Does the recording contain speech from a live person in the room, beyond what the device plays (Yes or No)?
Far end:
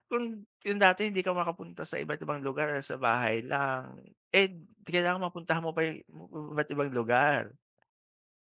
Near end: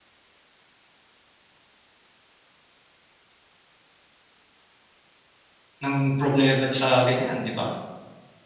Yes